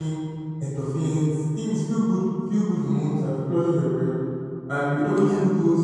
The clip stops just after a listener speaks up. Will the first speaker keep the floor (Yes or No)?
Yes